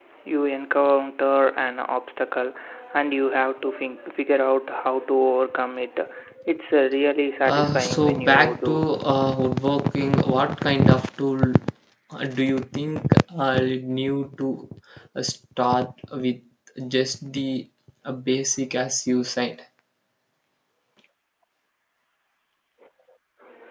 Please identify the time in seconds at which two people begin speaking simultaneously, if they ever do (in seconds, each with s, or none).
7.4 s